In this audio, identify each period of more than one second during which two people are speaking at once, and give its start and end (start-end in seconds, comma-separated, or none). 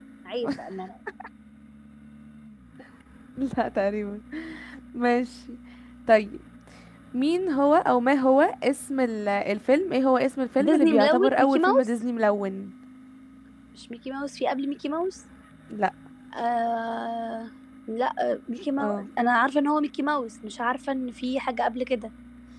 10.6-11.9